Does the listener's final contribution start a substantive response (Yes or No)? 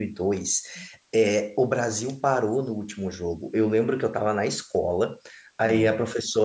No